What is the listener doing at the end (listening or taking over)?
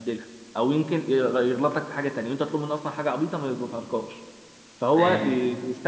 listening